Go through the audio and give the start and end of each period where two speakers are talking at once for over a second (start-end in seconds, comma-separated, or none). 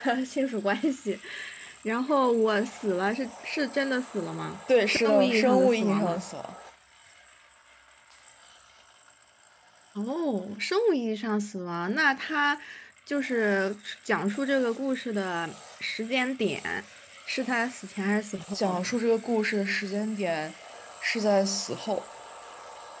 4.9-6.2